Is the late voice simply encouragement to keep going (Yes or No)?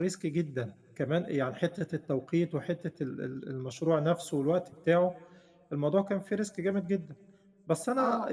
No